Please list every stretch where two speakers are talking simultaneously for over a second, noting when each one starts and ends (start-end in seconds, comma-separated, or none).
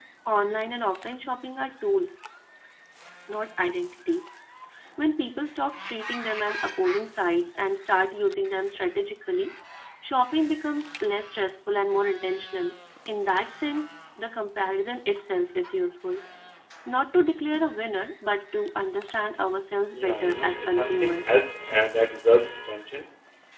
20.0-21.4